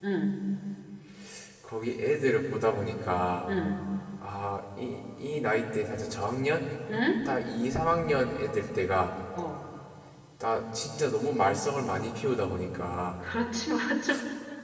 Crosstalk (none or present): none